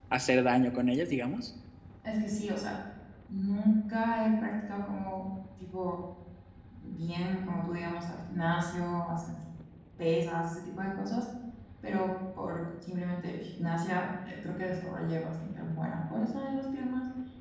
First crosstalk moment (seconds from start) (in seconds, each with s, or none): none